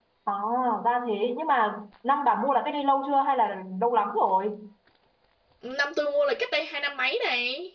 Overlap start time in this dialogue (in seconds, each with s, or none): none